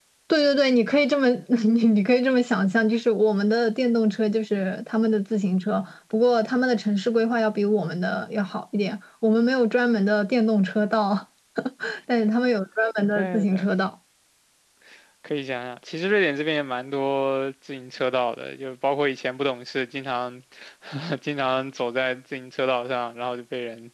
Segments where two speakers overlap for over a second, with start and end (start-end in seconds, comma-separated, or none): none